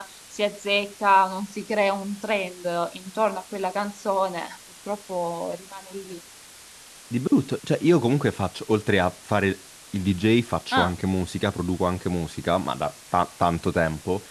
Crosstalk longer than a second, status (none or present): none